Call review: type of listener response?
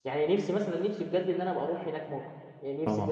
listening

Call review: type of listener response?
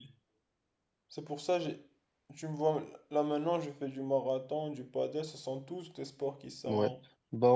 taking over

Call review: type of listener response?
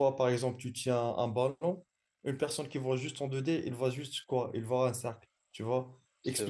listening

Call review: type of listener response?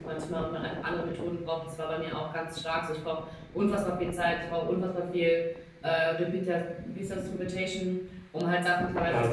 listening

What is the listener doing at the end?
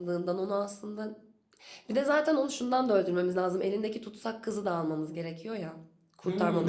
taking over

